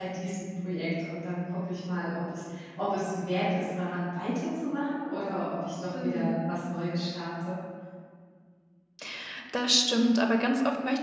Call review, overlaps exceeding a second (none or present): none